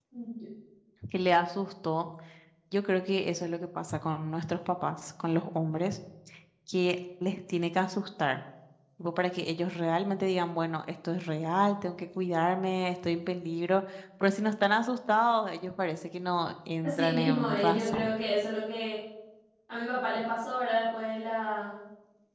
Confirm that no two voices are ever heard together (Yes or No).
No